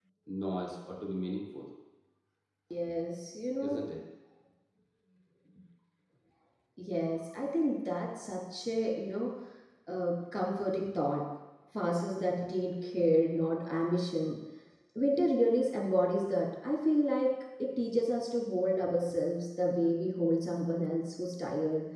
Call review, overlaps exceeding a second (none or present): none